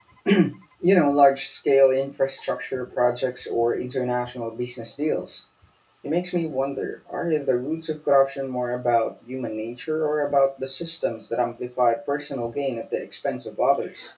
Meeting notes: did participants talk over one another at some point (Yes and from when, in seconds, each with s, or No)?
No